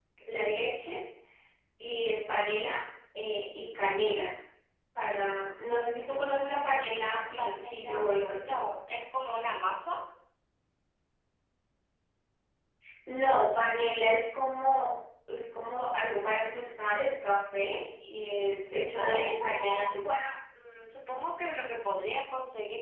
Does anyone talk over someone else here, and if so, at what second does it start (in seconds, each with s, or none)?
7.4 s